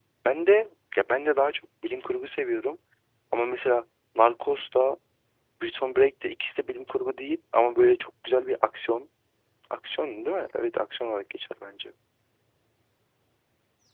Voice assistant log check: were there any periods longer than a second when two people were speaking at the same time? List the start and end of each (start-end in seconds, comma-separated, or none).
none